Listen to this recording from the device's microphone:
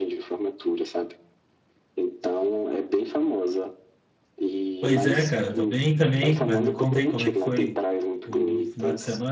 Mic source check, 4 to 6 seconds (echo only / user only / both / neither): both